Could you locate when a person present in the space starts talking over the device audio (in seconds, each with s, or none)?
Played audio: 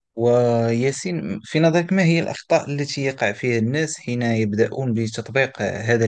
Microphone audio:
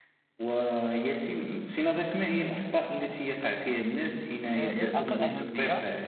4.6 s